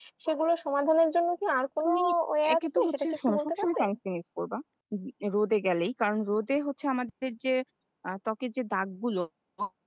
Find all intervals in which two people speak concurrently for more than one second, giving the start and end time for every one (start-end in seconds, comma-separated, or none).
2.5-3.8